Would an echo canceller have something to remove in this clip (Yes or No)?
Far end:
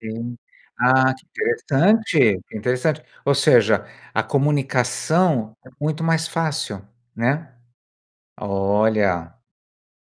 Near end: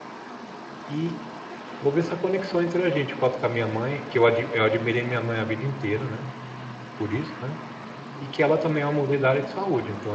No